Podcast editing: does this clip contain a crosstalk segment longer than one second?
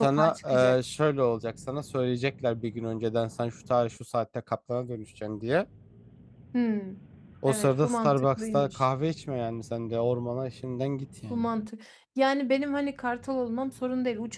Yes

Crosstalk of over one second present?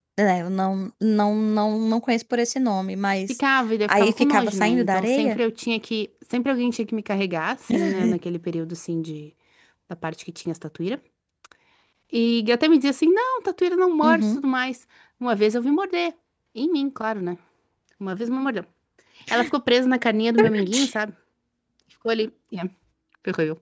Yes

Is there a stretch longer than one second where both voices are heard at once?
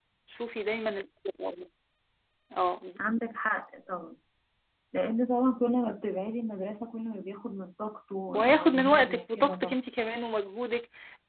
Yes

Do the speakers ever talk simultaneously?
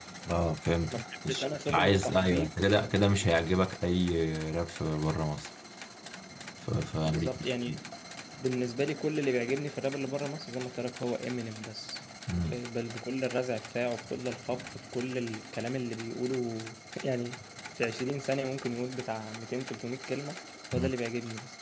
Yes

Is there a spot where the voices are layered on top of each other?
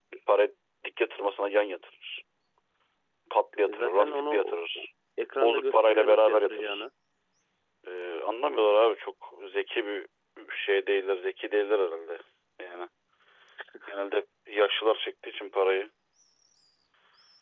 Yes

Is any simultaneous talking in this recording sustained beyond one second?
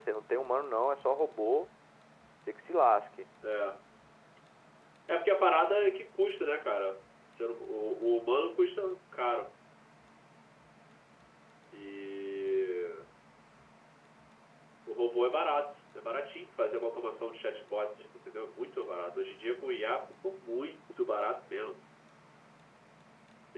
No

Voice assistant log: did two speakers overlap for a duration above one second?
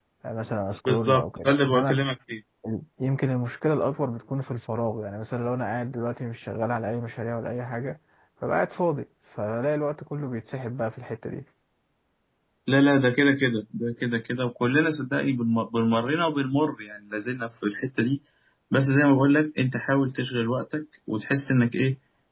Yes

